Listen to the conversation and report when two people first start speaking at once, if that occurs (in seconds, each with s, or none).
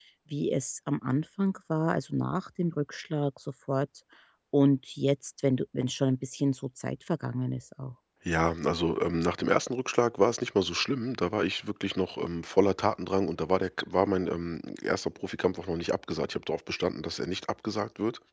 none